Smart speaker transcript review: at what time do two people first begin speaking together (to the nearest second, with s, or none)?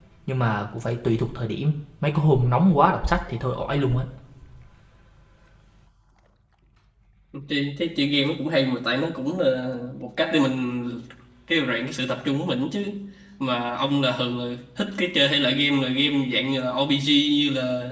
none